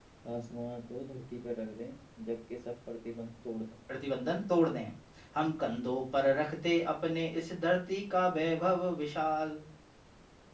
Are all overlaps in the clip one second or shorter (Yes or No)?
Yes